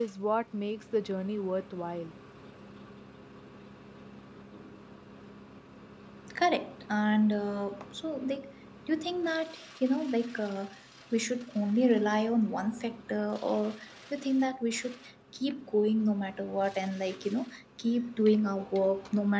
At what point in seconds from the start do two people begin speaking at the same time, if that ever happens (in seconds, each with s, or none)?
none